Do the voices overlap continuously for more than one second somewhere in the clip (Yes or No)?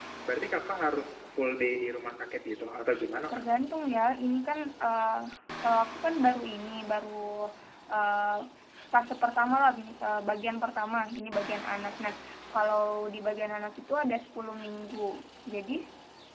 No